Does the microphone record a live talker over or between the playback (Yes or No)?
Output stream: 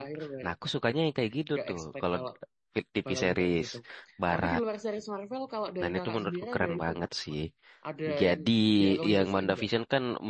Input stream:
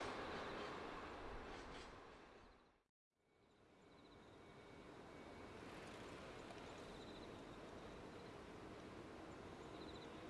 No